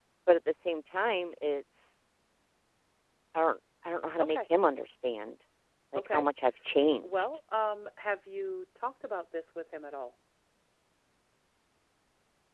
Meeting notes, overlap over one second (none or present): none